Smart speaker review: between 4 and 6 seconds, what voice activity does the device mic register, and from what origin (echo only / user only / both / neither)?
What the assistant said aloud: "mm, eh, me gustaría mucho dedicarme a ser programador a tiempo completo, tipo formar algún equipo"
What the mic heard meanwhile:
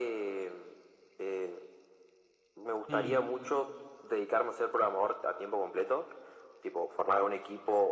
echo only